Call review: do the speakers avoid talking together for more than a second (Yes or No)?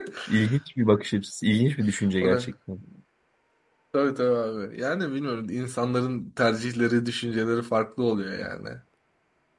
Yes